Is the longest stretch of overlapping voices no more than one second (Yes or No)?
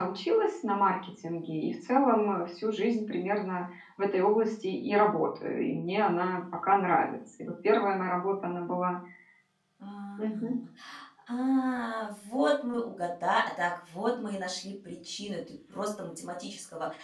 Yes